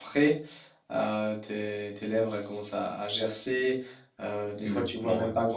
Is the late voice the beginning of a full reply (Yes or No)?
No